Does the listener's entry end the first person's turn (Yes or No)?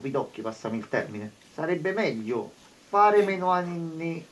No